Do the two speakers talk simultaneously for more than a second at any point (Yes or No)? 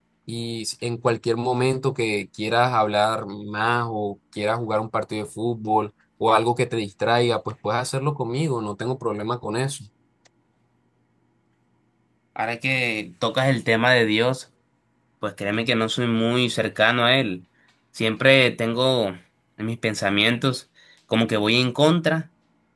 No